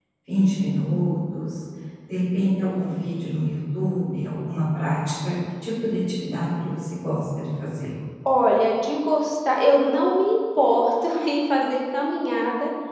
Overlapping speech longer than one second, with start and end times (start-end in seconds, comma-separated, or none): none